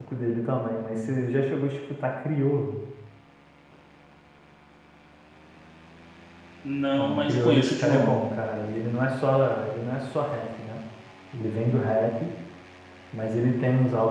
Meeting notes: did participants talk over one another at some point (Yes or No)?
Yes